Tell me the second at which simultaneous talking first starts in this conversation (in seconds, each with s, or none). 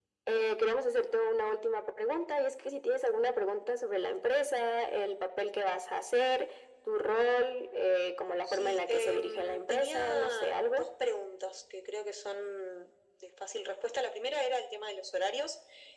8.5 s